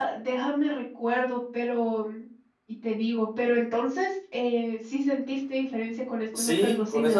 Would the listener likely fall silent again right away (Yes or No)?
No